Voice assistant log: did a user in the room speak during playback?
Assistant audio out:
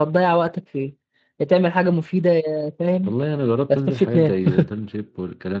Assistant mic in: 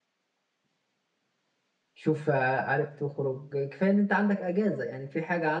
Yes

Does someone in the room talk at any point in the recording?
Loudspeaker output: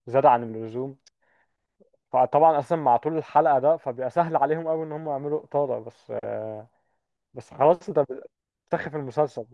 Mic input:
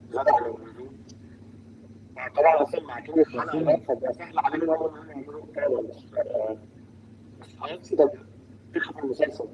Yes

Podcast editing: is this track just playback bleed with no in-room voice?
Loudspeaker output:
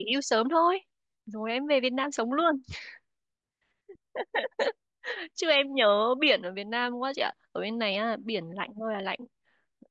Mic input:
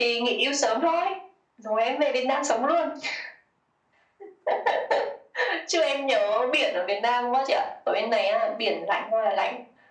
Yes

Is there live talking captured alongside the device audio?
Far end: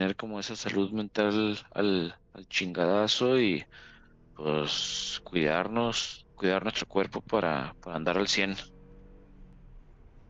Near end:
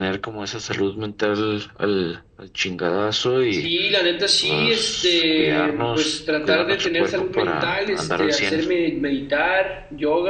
Yes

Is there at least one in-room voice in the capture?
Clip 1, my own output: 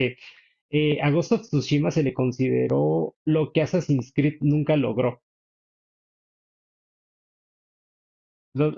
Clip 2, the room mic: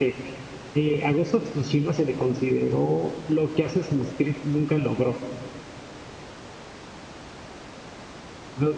No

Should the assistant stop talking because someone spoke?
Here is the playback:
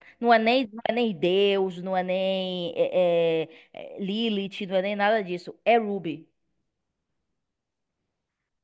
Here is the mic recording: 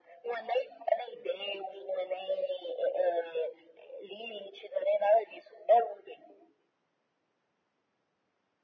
No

